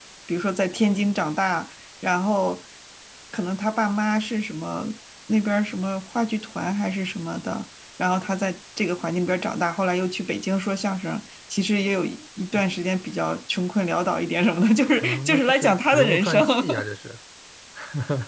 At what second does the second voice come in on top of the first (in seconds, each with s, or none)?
15.0 s